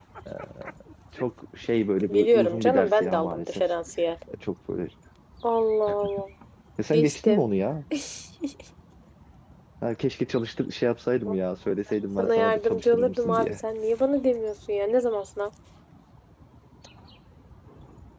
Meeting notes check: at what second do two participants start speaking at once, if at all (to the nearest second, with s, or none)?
2 s